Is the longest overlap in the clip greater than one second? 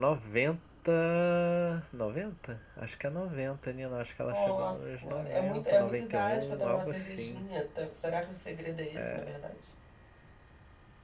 Yes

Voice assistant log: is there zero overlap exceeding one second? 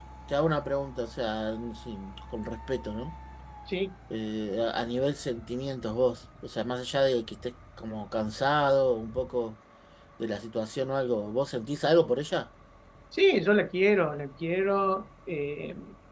Yes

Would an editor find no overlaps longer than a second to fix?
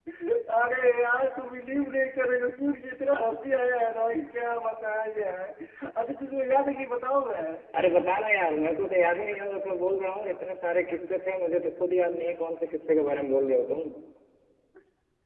Yes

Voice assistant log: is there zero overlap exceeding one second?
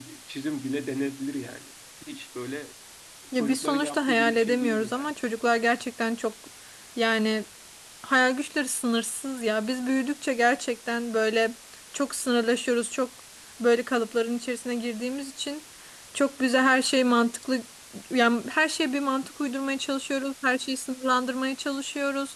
No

